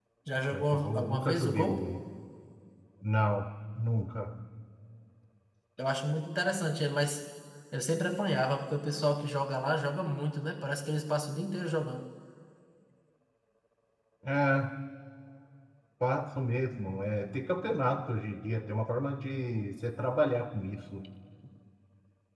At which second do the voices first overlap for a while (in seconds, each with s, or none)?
0.5 s